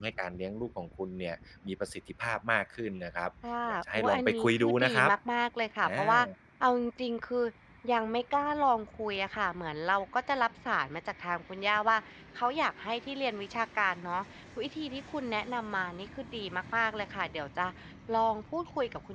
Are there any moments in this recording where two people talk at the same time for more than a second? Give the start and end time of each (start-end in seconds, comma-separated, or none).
3.7-4.9